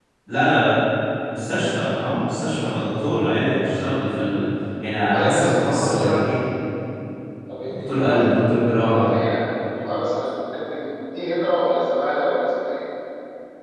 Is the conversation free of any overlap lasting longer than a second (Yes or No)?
No